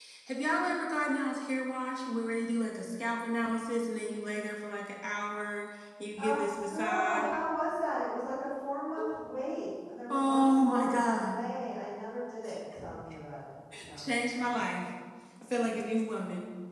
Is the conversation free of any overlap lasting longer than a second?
No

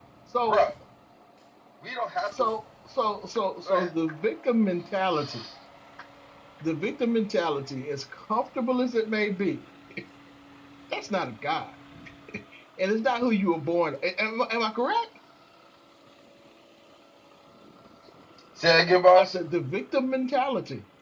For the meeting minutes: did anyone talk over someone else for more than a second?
No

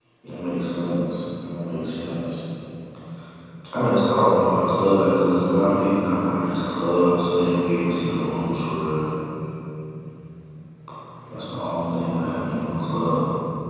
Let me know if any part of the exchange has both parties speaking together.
No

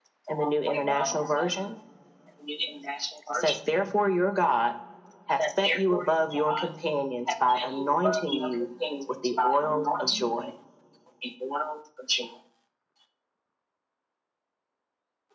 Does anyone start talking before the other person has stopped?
Yes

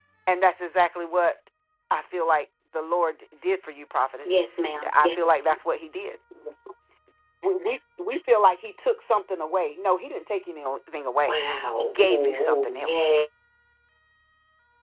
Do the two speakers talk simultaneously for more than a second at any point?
Yes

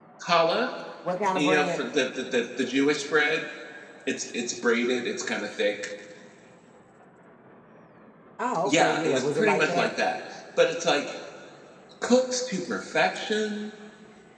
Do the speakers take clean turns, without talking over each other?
No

